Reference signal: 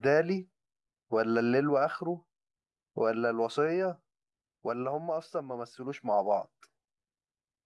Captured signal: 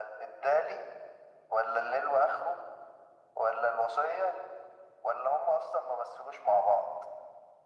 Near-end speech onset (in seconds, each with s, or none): none